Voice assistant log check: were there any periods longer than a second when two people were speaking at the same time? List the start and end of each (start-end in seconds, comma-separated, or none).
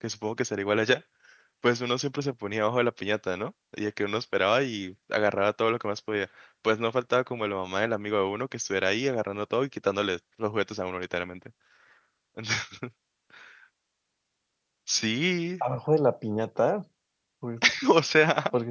none